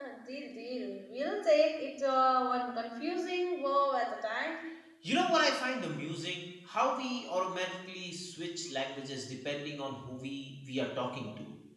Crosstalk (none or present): none